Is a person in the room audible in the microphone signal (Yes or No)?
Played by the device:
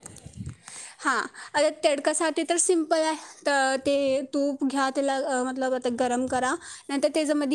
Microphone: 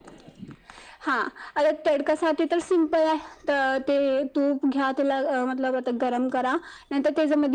No